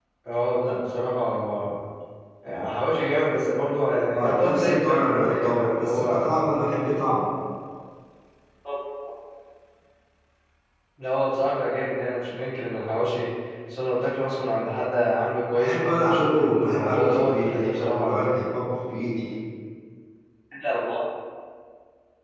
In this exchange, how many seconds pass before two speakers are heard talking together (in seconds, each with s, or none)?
4.1 s